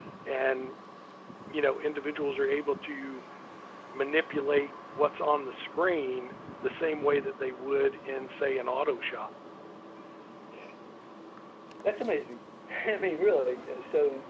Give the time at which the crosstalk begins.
none

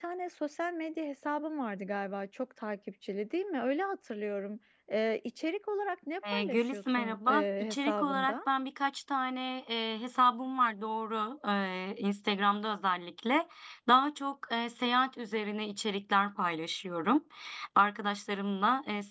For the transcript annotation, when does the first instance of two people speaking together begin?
6.2 s

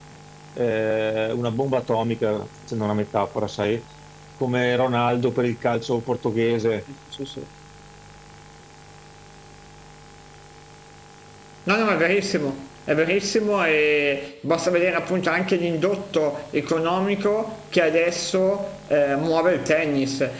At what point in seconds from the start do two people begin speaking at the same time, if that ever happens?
none

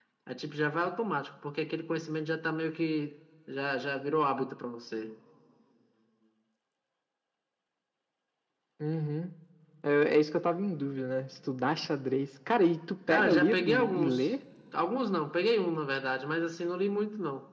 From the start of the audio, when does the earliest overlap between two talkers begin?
13.1 s

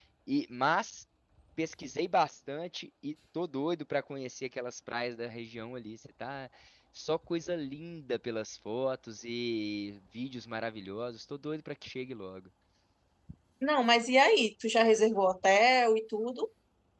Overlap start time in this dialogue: none

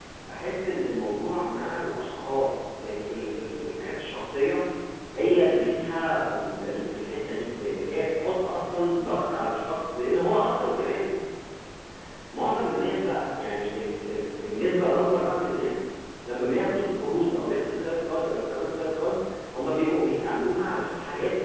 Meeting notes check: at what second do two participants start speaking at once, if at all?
none

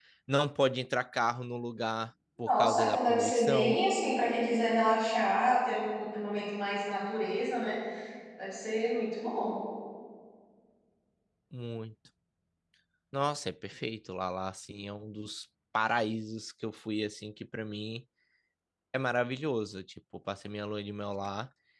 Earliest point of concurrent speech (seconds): 2.4 s

